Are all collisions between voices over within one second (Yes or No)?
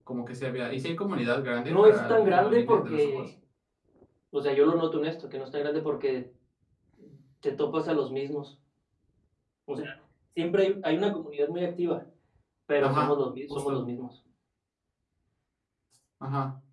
No